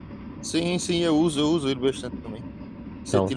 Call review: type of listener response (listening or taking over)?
listening